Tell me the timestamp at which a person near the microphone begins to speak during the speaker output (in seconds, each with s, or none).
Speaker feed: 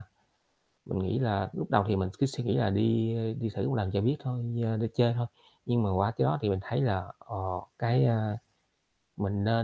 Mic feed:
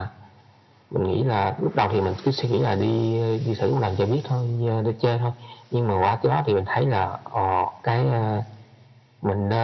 none